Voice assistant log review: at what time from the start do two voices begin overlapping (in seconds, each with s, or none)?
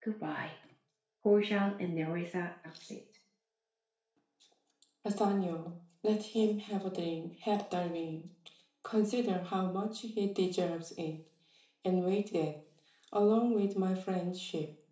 none